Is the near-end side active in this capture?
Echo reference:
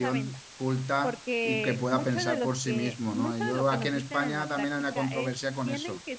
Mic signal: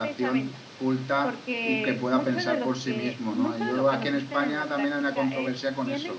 No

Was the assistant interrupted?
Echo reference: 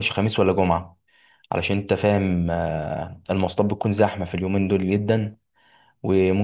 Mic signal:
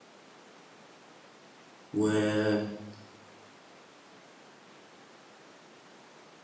Yes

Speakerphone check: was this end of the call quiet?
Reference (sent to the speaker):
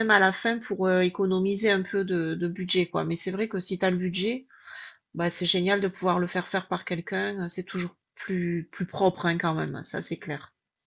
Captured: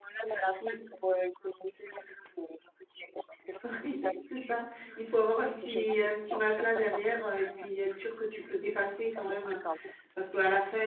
No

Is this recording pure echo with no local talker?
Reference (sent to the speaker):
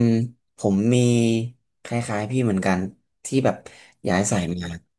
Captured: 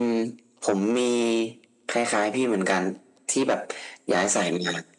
Yes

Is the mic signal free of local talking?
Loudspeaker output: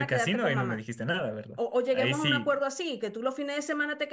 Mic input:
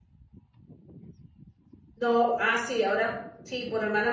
No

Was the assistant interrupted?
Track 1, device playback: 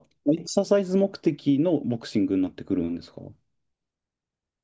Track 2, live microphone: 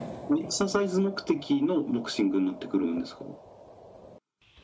No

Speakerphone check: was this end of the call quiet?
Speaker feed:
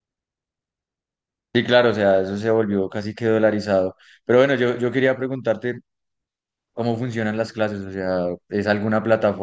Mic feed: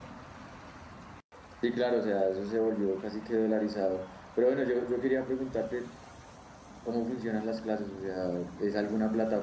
Yes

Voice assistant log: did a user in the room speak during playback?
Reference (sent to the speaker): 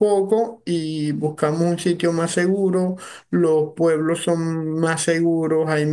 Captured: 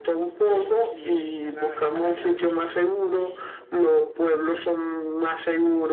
Yes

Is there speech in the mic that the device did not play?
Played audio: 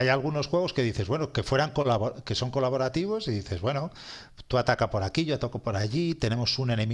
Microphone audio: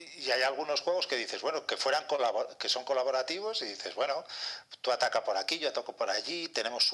No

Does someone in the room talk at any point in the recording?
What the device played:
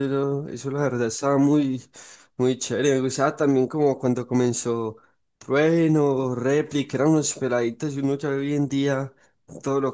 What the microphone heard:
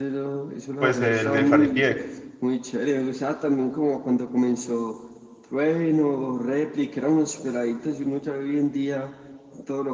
Yes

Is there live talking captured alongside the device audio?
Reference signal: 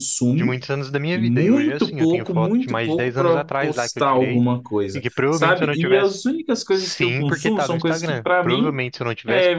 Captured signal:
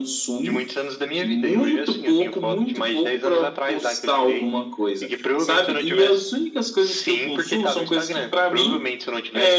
No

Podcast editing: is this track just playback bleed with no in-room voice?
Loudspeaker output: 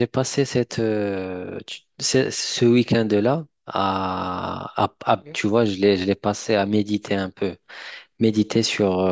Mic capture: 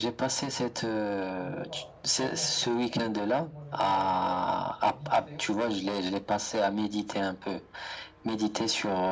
No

